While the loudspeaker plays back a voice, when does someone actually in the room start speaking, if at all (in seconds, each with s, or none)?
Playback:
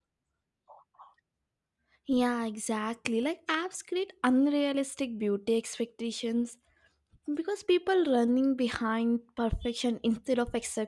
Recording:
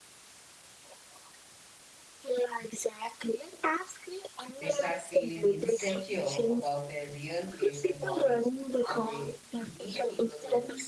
4.6 s